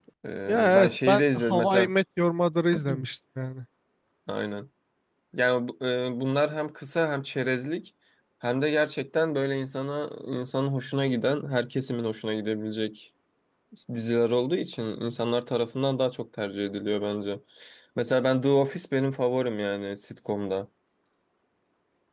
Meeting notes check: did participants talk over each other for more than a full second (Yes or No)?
Yes